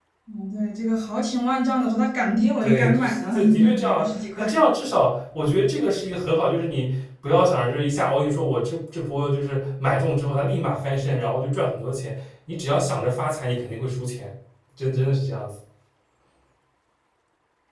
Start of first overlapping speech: 3 s

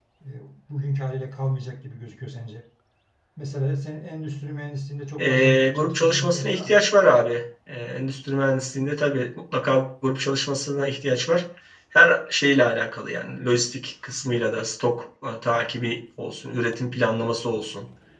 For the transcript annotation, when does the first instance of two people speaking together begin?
5 s

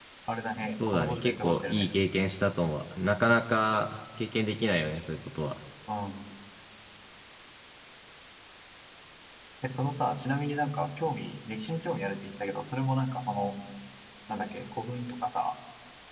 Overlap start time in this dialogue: 1 s

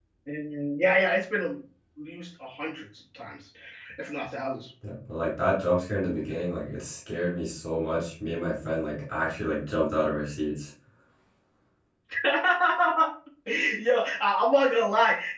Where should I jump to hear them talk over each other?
none

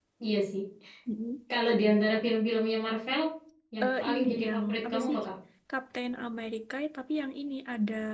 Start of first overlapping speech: 4 s

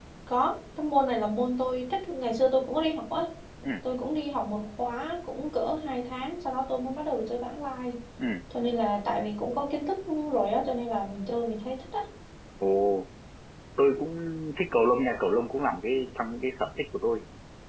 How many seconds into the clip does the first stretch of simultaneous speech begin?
none

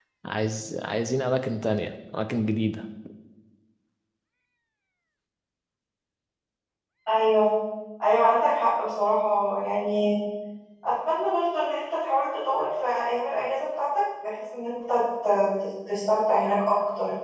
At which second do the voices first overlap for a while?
none

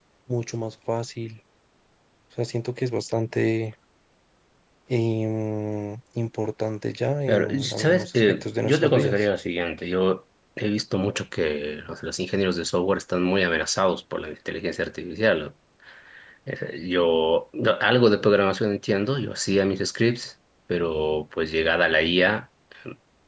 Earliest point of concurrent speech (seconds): 7 s

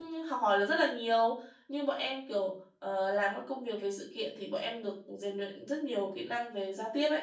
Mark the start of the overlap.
none

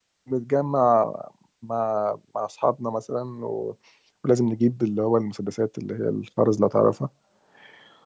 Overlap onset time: none

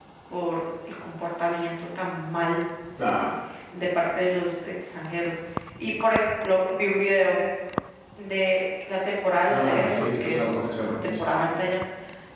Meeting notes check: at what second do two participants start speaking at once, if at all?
9 s

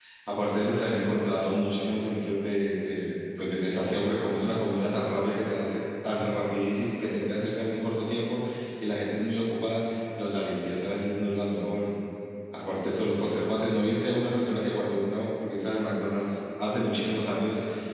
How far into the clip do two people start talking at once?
none

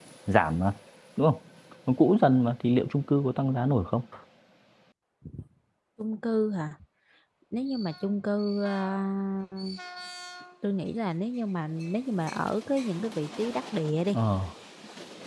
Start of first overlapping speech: none

